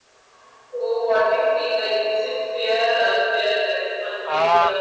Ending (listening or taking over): taking over